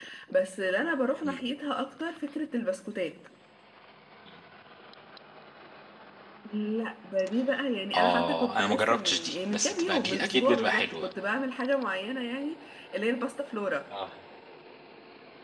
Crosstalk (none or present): present